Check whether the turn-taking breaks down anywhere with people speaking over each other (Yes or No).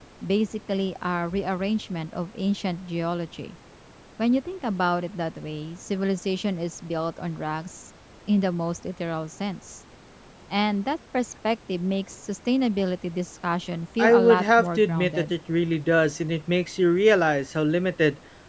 Yes